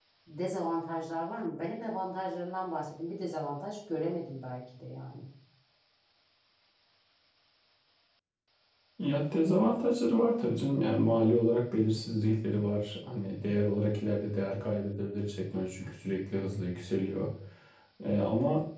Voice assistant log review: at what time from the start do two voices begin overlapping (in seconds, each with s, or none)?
none